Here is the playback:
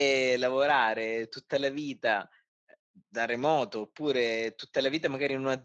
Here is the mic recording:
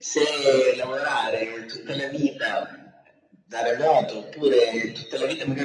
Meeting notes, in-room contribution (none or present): none